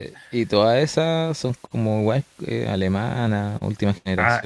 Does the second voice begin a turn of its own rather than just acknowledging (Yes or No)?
Yes